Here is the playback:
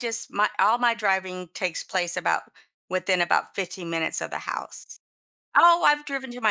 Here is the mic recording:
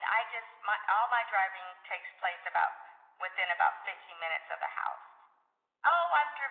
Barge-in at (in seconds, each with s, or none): none